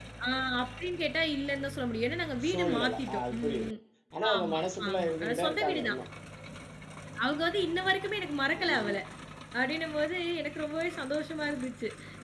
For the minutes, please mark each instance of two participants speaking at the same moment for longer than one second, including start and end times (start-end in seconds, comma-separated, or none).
2.4-3.7, 4.3-6.0